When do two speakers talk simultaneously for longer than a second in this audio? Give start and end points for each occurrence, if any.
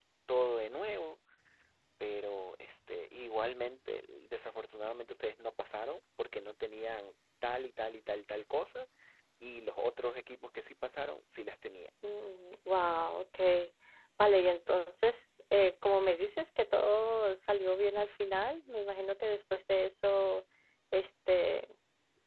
none

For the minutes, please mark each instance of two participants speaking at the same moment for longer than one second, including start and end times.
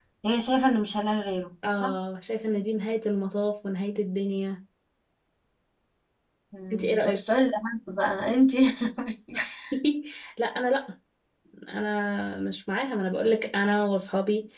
none

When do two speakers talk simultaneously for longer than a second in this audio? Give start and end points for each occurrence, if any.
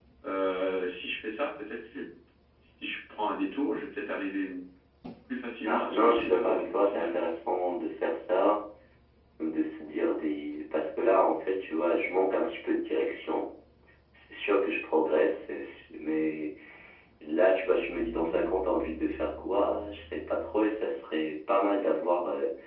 5.6-7.1

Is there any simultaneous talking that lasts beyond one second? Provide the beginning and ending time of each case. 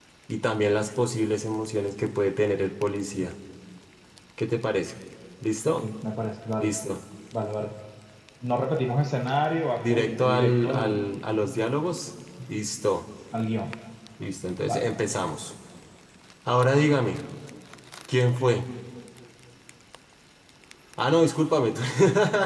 9.8-11.0

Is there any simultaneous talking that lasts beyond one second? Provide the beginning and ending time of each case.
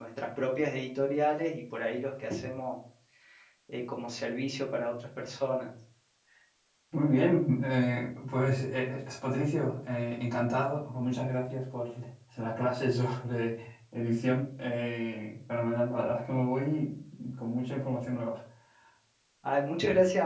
none

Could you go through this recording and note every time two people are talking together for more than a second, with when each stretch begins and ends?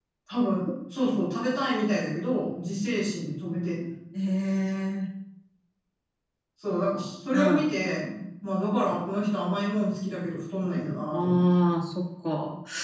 none

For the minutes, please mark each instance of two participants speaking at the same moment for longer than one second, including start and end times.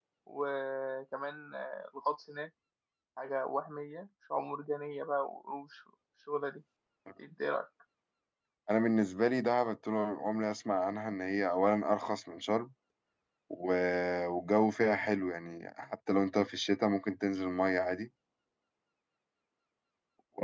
none

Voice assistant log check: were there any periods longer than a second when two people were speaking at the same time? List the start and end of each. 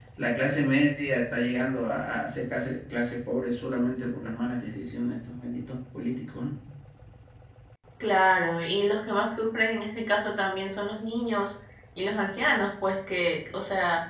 none

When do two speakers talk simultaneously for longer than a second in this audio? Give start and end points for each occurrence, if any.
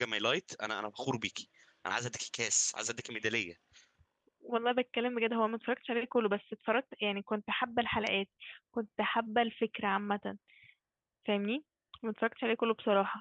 none

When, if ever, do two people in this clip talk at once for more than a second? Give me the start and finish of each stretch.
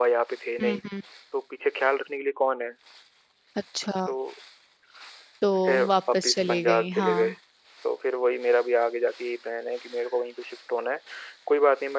5.9-7.2

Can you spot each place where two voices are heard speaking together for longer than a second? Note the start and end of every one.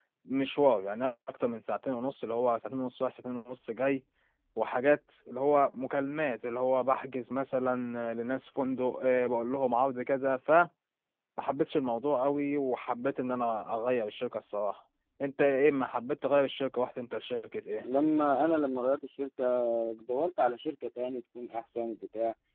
none

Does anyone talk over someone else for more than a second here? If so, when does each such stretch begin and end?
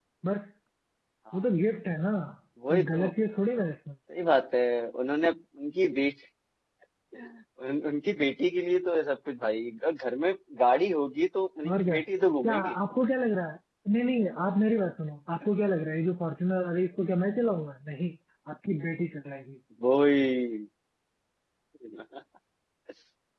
none

